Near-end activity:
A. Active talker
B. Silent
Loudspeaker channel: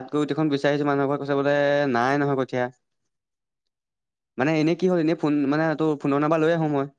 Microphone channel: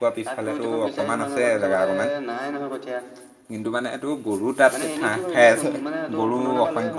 A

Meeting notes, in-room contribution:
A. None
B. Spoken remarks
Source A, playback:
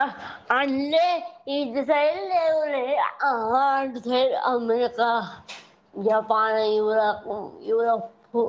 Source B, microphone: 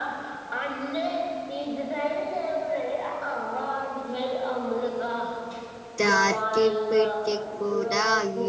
B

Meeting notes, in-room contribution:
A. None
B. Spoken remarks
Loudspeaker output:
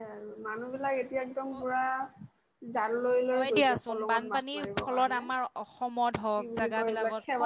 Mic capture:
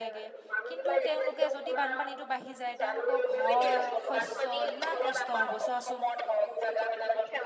B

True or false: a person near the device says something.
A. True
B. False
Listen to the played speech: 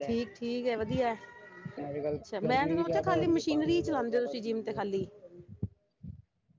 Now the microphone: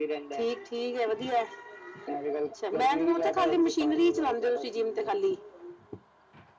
B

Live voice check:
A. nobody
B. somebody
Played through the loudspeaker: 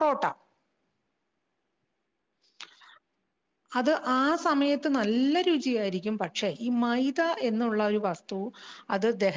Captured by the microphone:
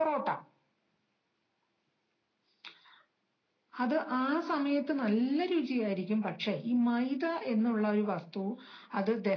A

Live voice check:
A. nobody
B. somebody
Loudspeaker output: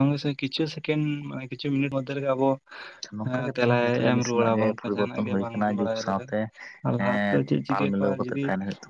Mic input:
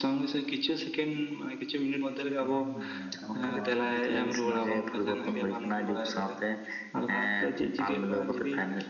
B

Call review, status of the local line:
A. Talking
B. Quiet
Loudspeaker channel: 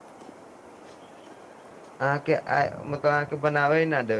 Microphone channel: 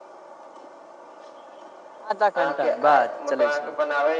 A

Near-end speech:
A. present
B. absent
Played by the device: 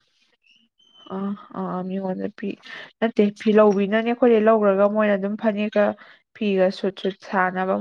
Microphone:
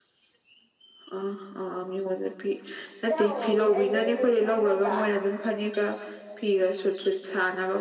A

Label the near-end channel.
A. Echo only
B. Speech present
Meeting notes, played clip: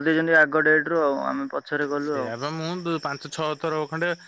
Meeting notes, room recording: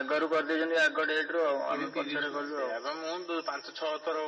B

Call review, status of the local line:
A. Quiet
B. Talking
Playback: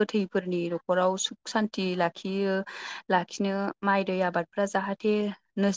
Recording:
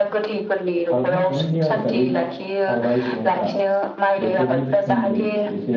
B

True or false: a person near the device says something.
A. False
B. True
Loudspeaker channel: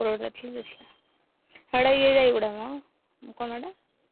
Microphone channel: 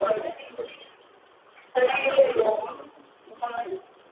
A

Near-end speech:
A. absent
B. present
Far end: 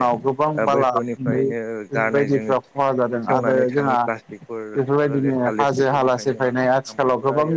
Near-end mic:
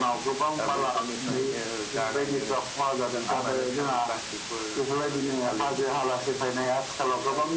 A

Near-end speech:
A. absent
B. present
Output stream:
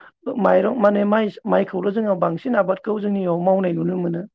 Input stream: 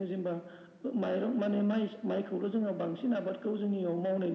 A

